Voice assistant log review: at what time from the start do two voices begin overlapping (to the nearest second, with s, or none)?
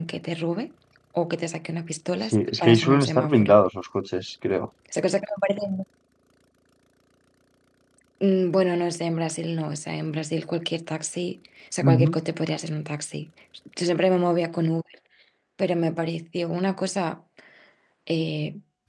2 s